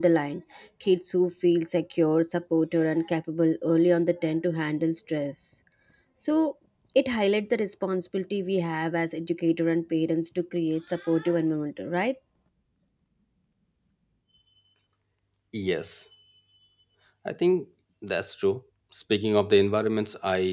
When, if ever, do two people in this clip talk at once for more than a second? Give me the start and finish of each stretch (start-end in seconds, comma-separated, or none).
none